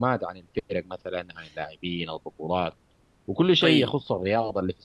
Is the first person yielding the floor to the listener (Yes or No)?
No